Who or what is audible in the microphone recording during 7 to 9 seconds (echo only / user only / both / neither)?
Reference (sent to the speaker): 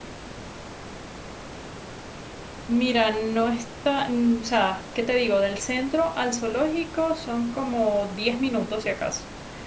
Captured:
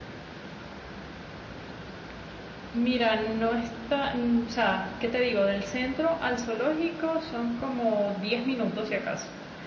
echo only